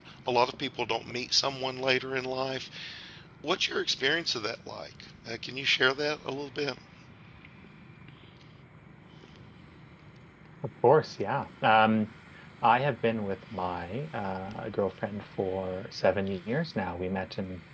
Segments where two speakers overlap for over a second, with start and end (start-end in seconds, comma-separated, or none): none